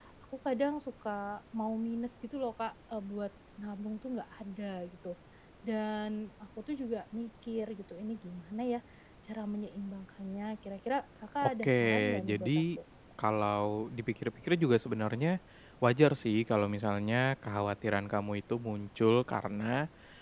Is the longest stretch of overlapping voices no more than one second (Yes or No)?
No